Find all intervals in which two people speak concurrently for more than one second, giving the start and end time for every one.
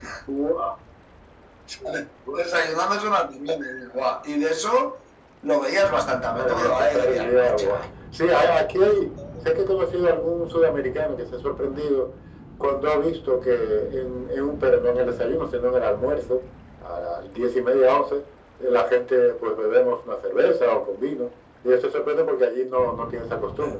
6.3-7.8

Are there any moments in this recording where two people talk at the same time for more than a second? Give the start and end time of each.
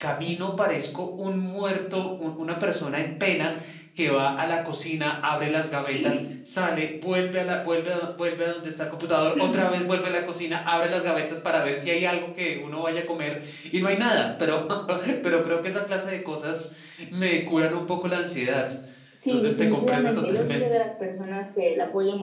19.3-20.8

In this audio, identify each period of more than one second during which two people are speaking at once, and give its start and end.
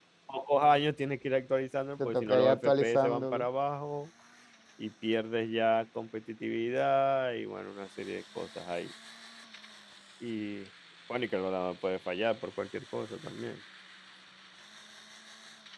2.0-3.4

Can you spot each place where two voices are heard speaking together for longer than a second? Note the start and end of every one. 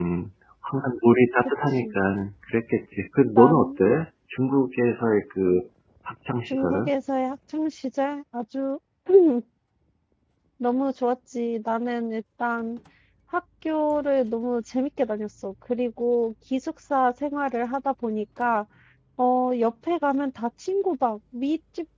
none

